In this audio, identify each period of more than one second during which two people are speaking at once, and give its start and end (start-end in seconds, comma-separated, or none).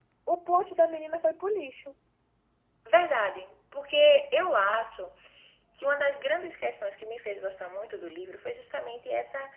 none